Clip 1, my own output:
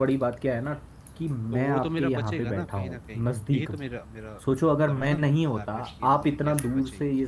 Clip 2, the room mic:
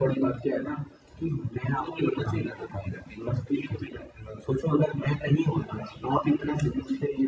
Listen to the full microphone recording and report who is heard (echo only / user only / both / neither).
echo only